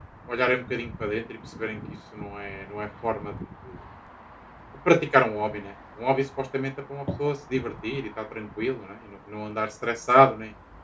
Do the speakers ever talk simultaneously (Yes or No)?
No